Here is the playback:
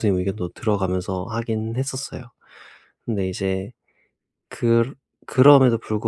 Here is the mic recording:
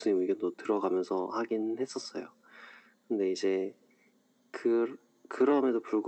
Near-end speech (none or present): none